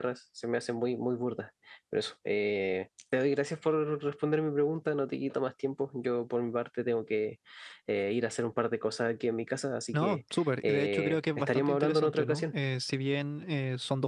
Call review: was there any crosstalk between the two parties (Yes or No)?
Yes